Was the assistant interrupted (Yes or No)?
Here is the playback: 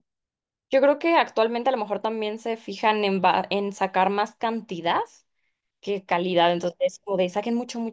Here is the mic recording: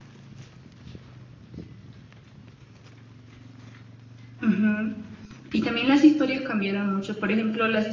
Yes